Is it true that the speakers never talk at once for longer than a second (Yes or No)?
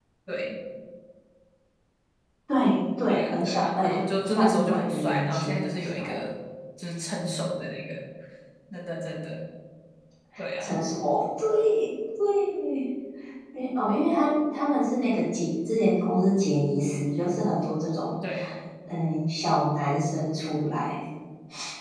No